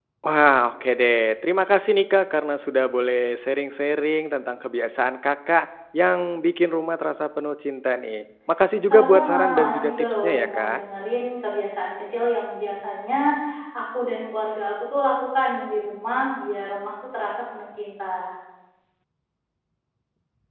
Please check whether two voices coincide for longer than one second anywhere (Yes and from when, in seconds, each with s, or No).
Yes, from 8.9 s